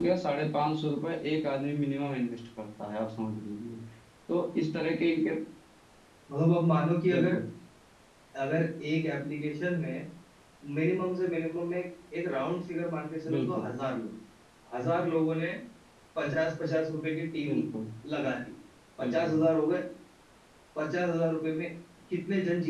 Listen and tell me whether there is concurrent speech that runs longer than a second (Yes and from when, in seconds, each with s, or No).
No